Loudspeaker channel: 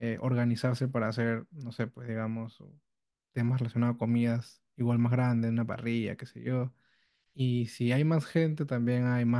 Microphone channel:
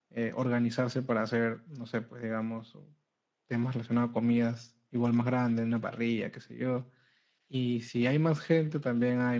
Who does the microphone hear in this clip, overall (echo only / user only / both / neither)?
echo only